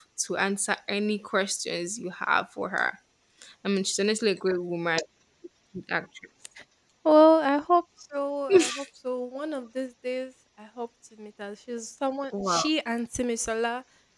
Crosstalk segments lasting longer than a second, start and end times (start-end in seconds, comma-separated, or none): none